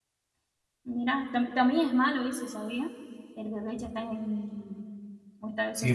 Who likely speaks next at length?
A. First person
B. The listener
B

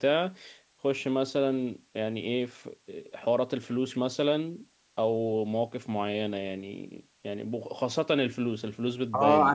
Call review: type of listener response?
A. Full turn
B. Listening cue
A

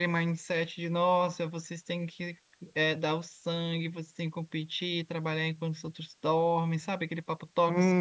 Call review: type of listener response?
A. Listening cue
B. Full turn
B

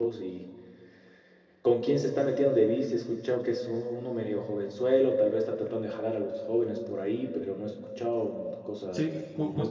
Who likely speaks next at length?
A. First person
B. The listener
B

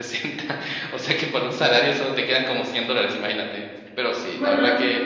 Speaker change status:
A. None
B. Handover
A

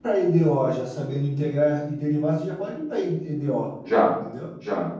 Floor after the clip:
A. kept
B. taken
B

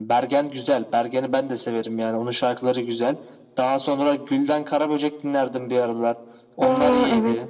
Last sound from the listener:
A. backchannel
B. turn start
B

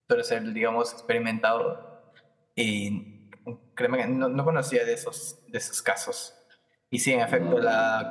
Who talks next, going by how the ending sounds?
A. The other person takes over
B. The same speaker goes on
B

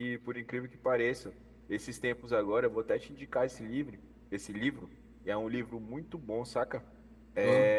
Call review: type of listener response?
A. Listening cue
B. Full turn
A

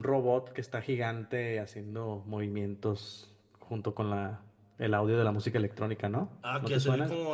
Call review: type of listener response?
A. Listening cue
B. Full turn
B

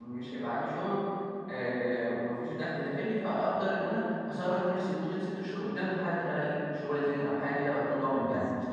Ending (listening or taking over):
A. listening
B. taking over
B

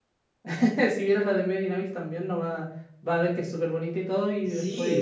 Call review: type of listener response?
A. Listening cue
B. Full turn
B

